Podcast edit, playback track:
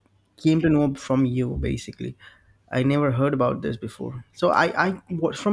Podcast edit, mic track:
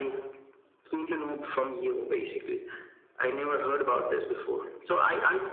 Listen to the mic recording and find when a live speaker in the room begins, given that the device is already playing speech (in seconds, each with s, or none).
none